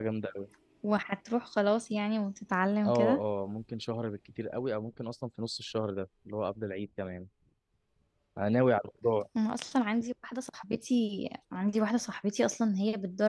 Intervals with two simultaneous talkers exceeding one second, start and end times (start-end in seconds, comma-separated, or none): none